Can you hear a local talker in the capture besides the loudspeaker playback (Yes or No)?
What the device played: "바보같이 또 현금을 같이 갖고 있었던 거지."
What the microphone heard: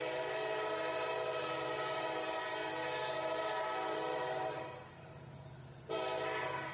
No